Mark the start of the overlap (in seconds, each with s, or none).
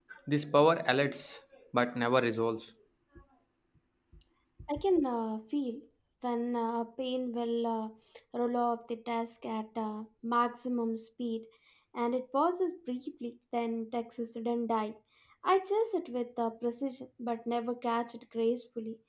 none